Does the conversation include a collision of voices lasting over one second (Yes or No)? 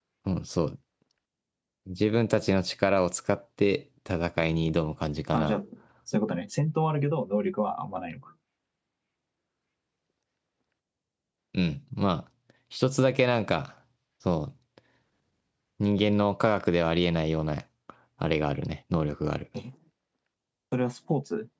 No